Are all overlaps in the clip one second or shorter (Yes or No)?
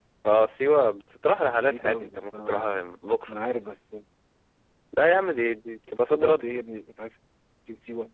No